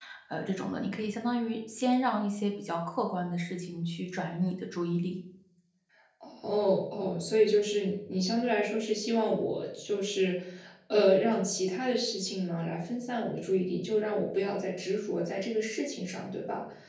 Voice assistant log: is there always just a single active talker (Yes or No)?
Yes